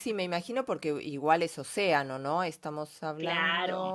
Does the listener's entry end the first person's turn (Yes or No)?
No